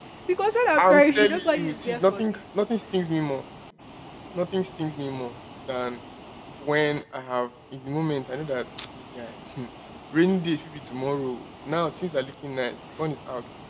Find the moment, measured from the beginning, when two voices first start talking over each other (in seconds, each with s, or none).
0.8 s